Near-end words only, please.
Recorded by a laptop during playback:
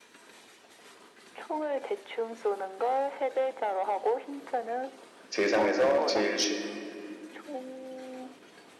세상에서 제일 쉬운

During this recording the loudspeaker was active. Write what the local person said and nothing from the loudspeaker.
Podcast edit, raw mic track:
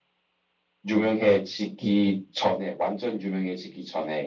음,

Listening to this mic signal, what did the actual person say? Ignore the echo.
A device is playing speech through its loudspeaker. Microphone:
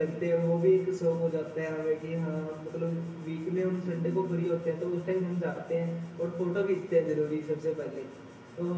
none

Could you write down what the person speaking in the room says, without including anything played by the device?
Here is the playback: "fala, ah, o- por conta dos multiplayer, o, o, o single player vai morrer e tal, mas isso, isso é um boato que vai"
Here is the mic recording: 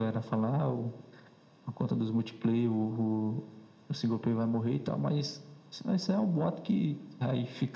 none

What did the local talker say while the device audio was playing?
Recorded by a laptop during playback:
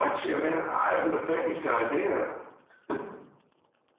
none

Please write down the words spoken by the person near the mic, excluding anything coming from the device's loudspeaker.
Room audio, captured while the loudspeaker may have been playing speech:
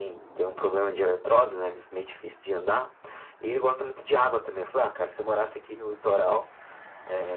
none

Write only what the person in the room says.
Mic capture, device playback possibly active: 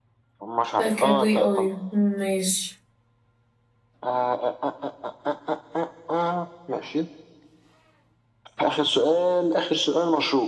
آه، كابري اويو ماشي

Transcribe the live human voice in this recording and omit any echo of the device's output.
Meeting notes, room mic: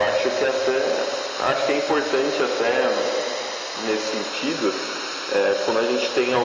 none

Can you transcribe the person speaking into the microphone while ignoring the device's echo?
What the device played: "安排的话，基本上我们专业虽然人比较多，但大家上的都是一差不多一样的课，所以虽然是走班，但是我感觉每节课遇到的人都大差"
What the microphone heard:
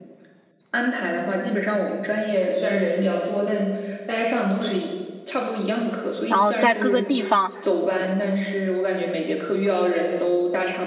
然后在各个地方

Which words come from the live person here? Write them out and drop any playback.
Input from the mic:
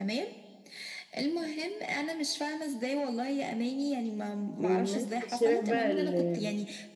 والناس في الشارع بقى ال-

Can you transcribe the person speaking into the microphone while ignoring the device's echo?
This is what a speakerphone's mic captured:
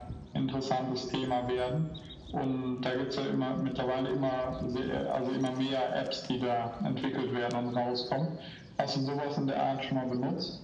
none

